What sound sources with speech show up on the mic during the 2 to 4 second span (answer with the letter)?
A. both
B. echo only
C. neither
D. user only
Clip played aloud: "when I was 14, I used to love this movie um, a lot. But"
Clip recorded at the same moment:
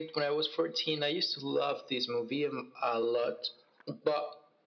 B